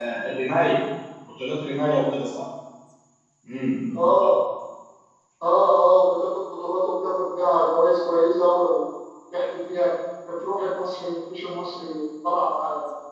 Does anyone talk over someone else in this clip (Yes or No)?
No